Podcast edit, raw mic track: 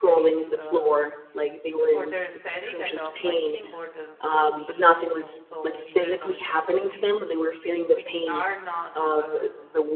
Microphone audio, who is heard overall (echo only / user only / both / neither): both